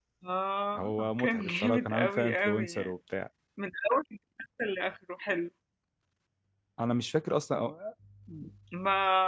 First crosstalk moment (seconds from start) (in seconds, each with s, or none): 0.8 s